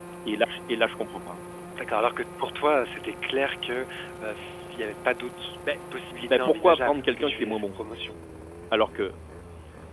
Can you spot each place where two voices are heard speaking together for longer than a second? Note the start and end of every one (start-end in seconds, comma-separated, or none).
6.2-7.8